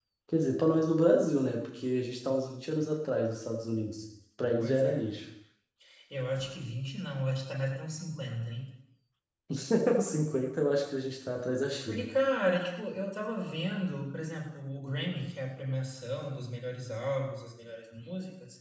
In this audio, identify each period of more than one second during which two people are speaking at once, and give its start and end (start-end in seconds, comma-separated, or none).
none